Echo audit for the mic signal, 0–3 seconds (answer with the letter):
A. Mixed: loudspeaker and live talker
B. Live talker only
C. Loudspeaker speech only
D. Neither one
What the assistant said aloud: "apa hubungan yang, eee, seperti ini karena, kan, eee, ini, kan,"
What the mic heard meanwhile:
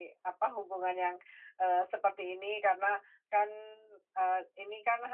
C